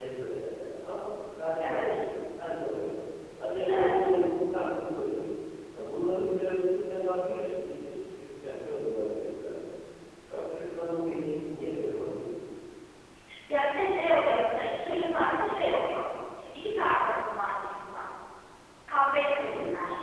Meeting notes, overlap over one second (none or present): none